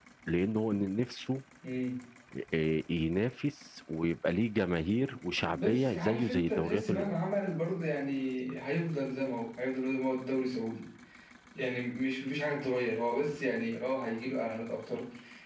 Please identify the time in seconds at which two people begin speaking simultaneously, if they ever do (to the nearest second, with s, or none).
6 s